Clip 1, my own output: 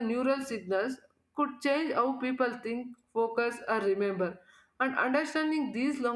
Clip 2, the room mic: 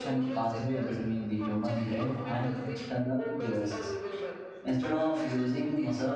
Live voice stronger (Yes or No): Yes